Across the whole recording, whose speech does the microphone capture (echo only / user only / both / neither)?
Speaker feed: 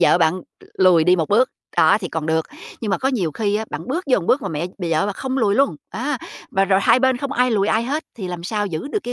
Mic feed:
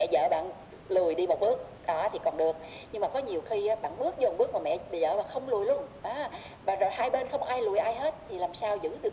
echo only